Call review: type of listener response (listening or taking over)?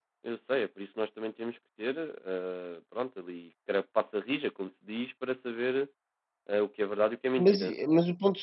taking over